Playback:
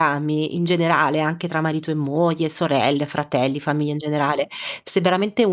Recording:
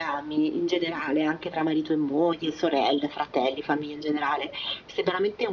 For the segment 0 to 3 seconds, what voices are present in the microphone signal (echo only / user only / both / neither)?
echo only